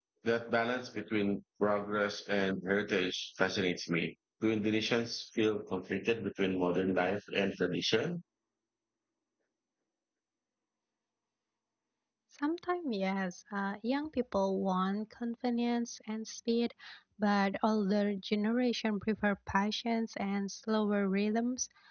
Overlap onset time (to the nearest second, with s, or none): none